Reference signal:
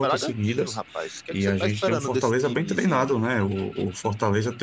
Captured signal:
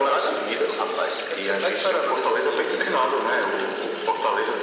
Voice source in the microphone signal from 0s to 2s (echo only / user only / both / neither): echo only